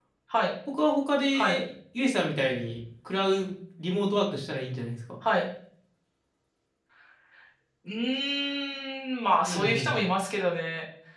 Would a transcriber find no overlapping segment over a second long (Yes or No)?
Yes